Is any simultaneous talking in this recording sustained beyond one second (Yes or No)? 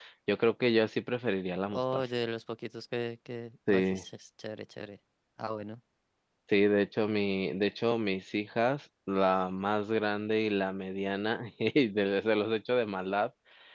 No